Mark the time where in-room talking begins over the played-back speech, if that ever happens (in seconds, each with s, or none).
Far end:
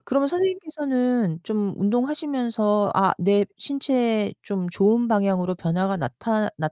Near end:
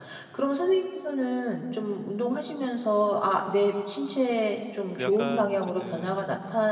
4.9 s